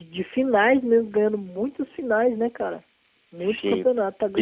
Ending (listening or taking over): taking over